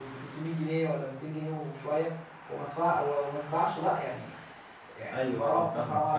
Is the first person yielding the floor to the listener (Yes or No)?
Yes